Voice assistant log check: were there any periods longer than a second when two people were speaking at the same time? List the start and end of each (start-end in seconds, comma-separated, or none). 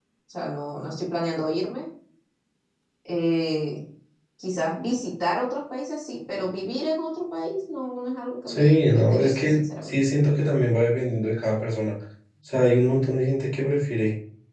8.5-9.9